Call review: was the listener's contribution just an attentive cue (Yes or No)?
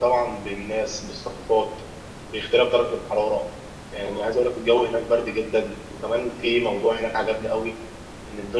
Yes